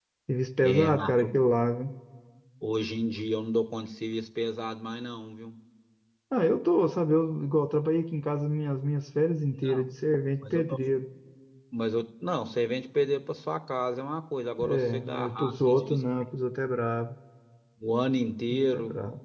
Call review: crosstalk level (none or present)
present